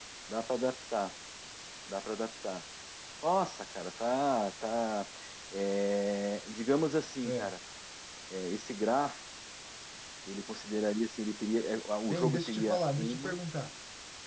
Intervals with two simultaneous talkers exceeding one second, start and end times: 12.1-13.4

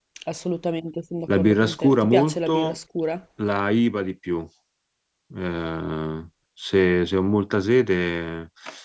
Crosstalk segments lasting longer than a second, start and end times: 1.3-2.8

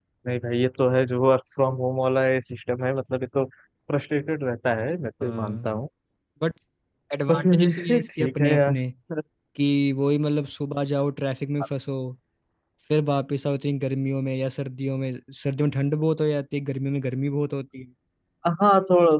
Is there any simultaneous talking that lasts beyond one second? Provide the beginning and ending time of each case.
7.3-8.7

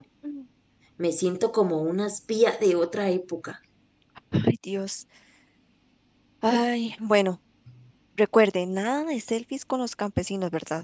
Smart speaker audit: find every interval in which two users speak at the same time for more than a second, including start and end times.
none

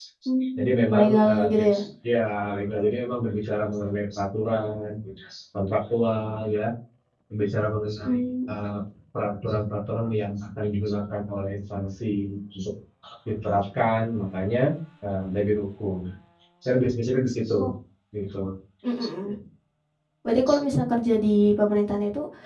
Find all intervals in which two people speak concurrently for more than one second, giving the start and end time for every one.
0.6-1.8

